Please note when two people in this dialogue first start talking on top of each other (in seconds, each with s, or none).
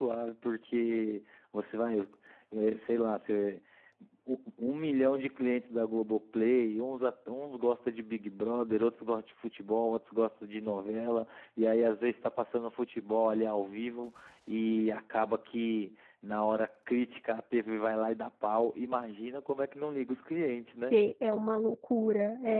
none